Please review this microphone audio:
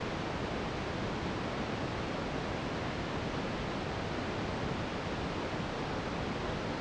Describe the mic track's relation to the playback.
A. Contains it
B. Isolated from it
B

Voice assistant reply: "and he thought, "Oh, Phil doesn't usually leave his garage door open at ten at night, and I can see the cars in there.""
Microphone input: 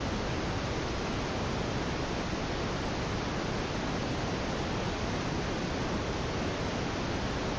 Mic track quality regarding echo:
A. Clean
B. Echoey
A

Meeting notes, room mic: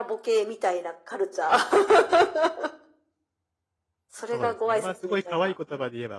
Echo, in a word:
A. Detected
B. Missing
A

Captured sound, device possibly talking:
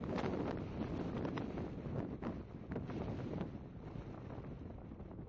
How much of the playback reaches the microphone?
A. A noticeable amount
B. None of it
B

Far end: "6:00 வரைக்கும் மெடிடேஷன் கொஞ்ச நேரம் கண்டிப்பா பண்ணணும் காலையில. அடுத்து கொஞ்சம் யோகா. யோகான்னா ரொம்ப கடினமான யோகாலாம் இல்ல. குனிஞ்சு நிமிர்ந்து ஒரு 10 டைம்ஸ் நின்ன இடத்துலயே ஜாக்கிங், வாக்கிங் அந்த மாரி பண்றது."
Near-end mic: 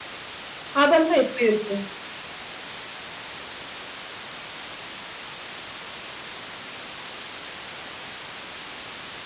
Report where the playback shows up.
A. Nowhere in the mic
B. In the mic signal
A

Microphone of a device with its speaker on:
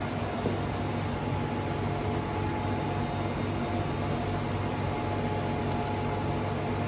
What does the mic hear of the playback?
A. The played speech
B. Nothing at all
B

